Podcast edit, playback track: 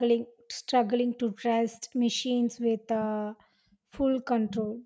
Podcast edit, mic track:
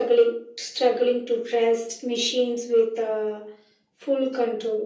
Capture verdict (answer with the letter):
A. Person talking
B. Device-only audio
B